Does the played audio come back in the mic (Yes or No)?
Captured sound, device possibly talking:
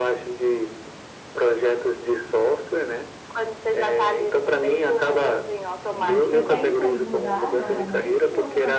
Yes